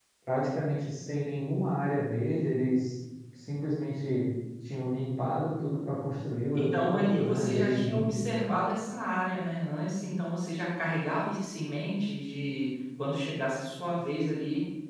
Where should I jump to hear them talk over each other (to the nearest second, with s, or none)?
7 s